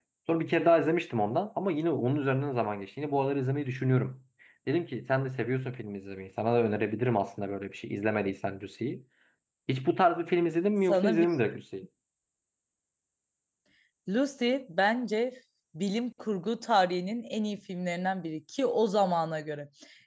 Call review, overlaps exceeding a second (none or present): none